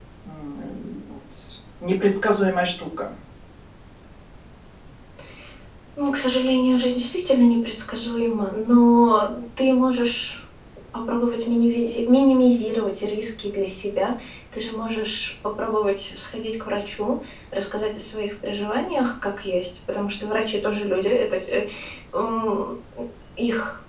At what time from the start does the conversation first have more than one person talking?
none

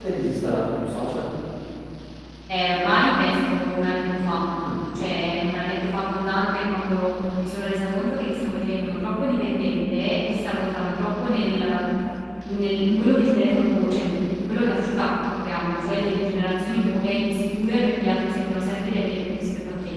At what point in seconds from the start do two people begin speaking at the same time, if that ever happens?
none

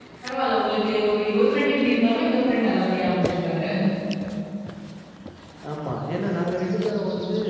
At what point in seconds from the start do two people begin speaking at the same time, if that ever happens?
none

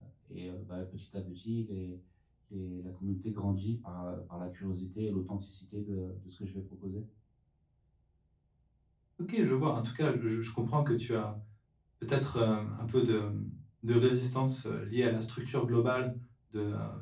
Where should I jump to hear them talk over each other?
none

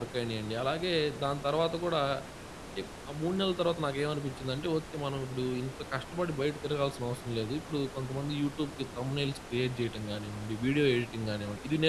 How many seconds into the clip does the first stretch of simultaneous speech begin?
none

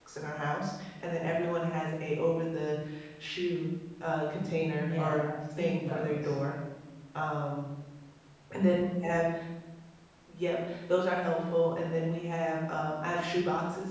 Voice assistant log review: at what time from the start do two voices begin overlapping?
4.8 s

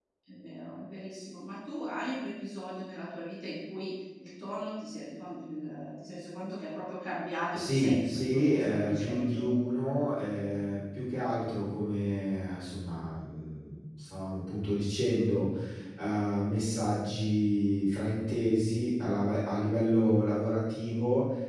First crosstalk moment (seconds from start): 7.5 s

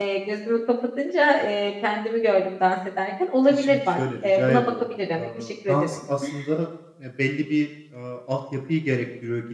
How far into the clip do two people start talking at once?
3.5 s

